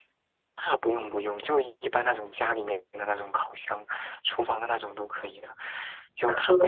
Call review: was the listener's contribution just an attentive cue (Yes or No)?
Yes